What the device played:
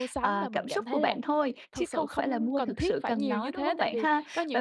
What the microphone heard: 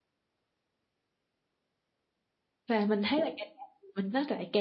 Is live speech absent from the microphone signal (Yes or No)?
No